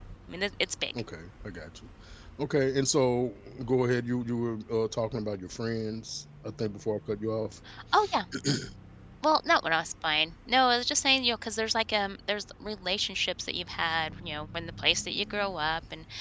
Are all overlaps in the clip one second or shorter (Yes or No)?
Yes